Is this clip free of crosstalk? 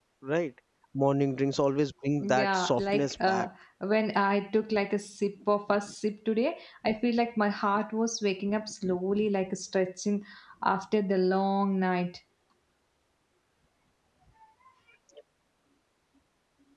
No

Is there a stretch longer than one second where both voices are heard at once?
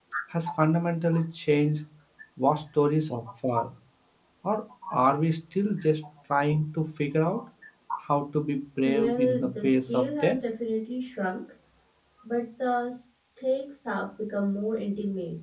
Yes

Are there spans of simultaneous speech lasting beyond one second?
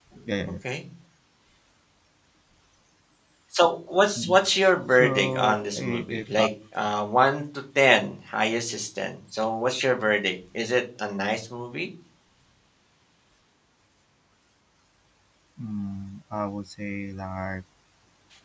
Yes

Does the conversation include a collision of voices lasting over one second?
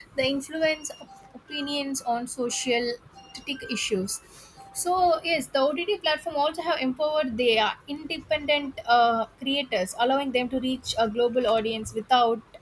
No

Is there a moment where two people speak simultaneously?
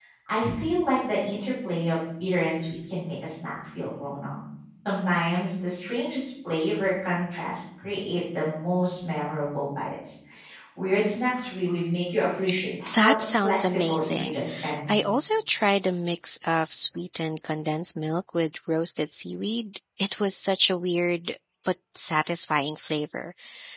Yes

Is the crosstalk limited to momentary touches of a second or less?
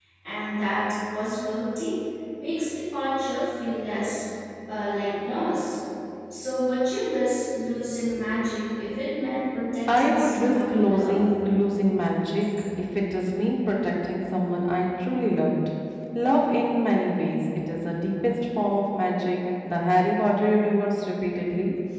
No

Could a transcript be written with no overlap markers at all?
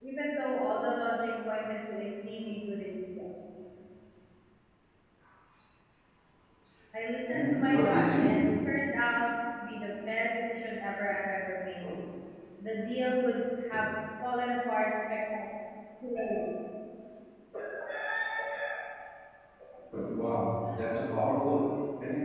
No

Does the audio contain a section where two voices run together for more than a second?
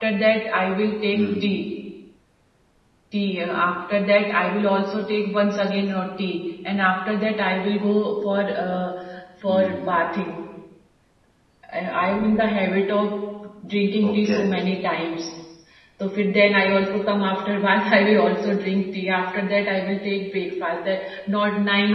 No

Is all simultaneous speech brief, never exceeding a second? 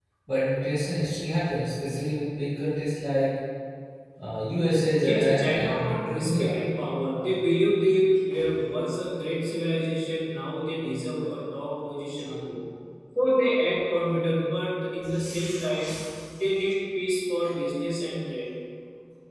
No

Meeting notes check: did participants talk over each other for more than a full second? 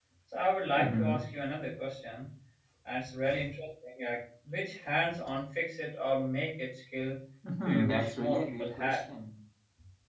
Yes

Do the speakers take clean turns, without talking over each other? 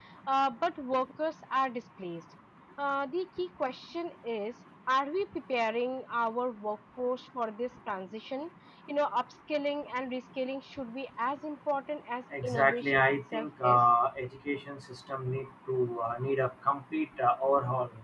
No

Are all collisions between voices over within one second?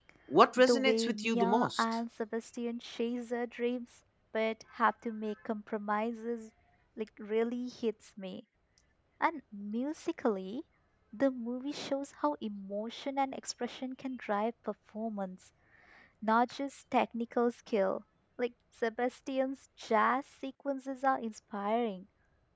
No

